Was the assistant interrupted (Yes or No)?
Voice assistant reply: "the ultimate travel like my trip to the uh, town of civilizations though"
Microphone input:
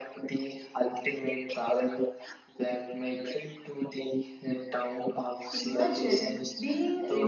Yes